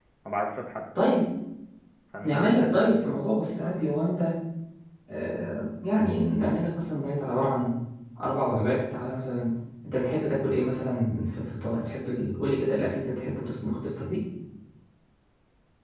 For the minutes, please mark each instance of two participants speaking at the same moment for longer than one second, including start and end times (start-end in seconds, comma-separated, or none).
2.2-3.8